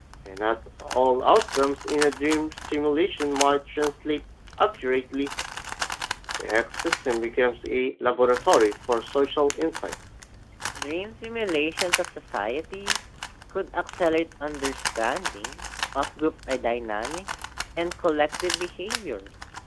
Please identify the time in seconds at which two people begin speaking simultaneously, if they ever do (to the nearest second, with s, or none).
none